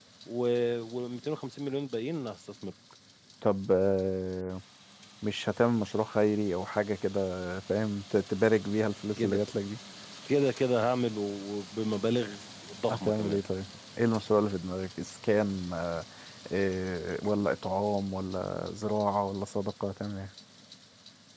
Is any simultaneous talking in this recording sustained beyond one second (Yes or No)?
No